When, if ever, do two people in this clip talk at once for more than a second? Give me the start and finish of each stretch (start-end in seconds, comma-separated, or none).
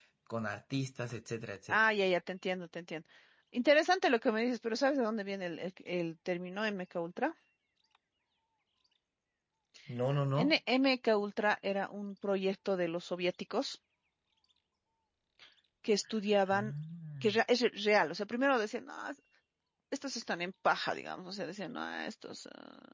none